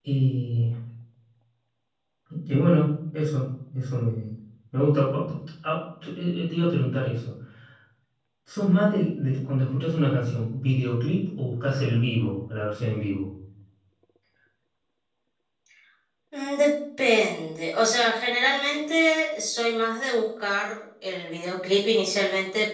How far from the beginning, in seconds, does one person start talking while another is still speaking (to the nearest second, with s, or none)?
none